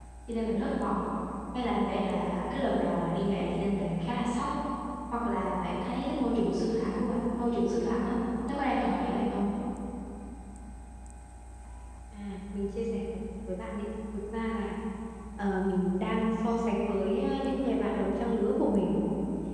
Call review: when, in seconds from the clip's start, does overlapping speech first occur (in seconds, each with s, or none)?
none